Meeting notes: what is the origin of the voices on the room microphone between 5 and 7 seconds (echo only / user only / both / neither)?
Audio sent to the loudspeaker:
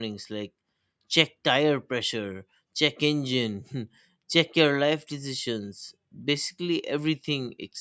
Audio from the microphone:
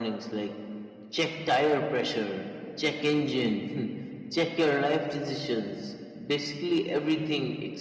echo only